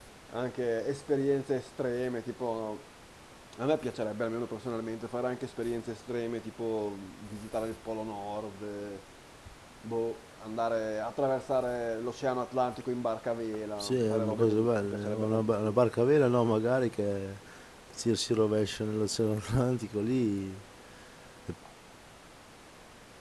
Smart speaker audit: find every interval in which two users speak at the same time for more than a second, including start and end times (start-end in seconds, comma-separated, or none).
13.8-15.8